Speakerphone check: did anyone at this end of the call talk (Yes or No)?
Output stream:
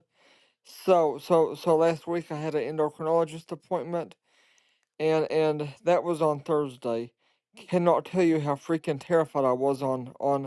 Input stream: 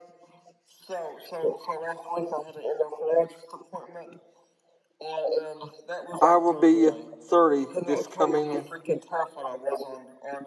Yes